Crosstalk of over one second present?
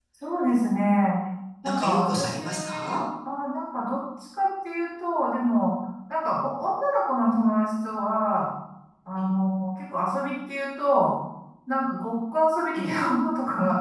Yes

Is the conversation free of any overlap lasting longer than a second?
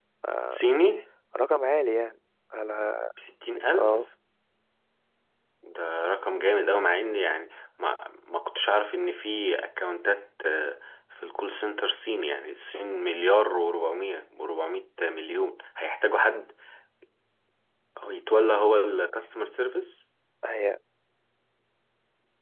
Yes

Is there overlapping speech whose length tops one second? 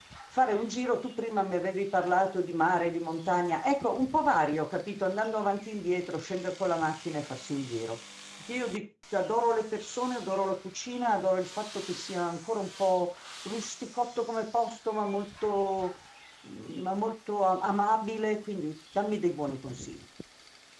No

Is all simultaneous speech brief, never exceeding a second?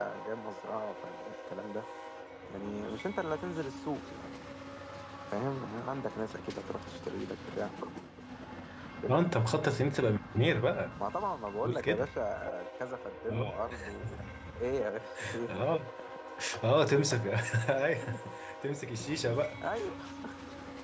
Yes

